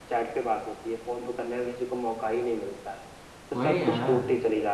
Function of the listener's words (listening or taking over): listening